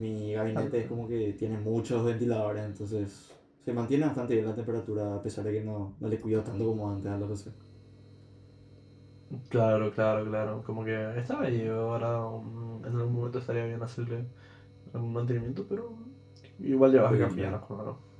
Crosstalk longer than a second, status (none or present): none